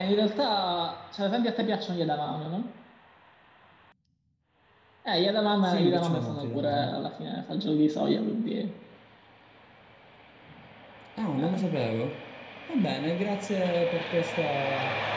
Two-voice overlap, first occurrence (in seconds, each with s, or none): 5.6 s